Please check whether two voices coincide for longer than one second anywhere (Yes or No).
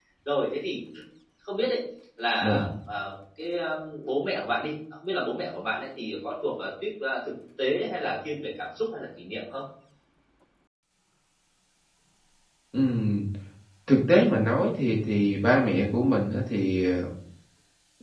No